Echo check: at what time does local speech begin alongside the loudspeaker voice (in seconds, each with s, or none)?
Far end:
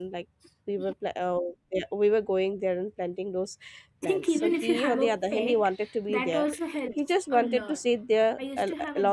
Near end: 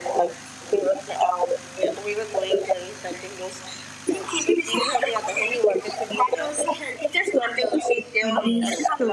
8.2 s